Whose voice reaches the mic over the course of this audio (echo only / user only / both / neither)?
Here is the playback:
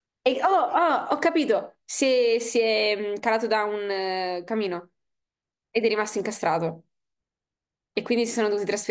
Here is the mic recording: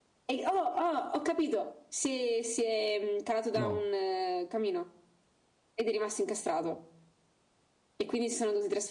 both